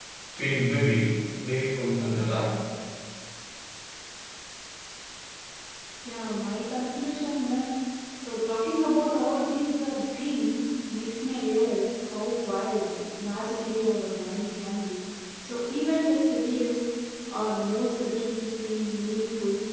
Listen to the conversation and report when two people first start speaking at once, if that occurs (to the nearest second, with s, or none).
none